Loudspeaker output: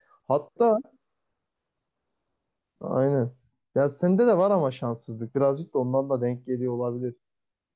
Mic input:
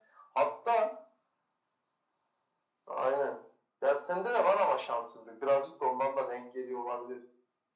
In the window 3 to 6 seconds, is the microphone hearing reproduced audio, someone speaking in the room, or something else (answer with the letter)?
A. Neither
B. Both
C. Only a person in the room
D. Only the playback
D